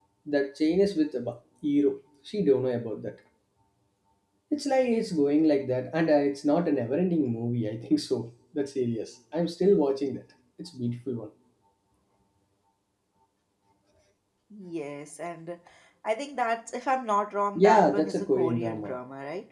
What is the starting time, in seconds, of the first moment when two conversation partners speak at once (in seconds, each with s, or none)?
17.6 s